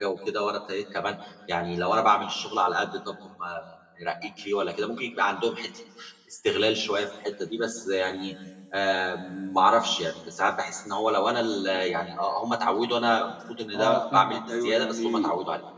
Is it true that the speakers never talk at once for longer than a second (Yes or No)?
No